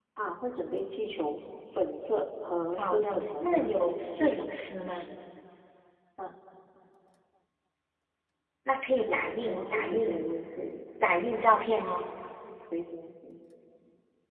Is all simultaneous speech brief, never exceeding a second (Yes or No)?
No